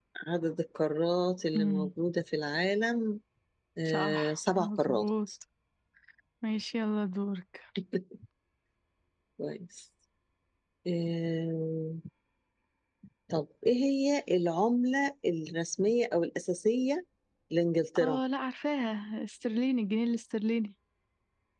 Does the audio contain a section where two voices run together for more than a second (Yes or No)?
Yes